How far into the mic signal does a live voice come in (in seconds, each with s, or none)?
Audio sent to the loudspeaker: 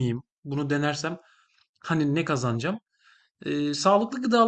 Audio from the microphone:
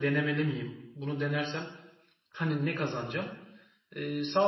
none